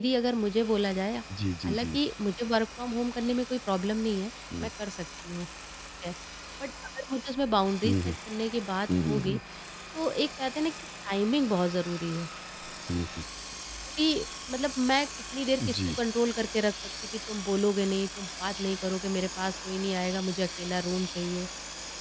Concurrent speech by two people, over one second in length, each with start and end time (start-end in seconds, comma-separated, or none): none